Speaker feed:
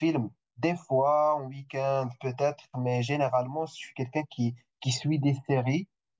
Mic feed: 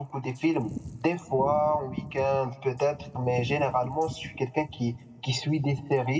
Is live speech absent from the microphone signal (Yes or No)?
Yes